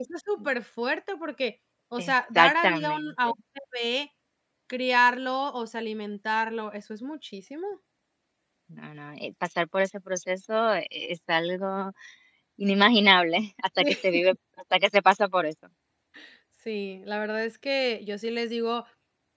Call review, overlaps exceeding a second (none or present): present